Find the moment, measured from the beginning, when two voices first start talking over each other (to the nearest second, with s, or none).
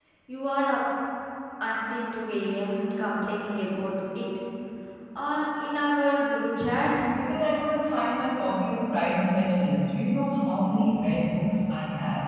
none